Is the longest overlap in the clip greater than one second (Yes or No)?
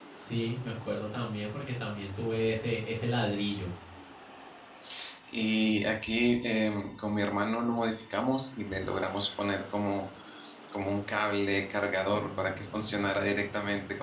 Yes